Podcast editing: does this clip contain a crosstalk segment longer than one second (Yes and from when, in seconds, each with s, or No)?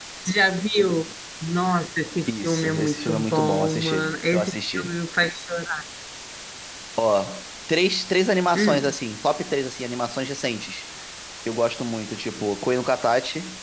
Yes, from 2.3 s